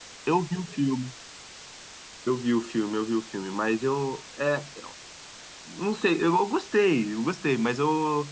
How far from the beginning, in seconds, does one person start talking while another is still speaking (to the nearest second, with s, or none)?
none